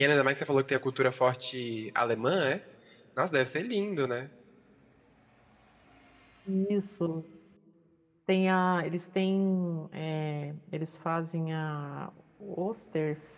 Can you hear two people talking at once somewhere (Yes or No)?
No